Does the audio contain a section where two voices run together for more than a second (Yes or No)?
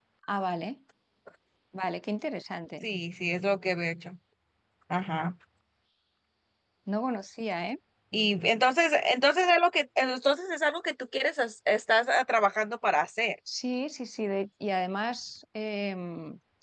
No